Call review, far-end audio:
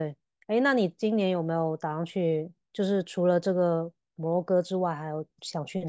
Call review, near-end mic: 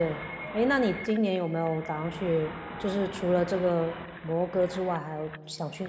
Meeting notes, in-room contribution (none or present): none